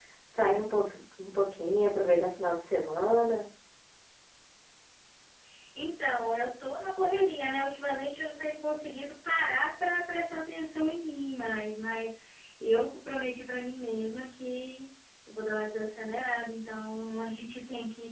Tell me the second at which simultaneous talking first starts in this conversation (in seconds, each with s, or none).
none